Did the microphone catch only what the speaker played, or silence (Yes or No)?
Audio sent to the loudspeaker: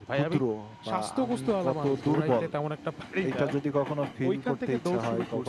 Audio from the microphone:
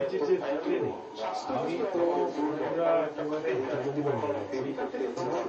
No